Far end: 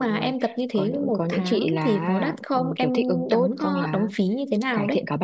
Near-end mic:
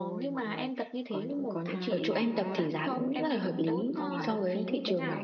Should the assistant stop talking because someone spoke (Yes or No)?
Yes